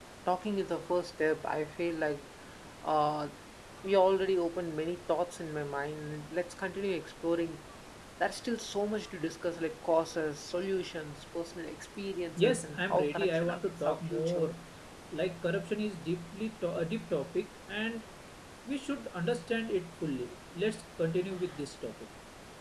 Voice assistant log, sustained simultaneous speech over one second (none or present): present